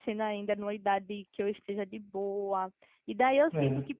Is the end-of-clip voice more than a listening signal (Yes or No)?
No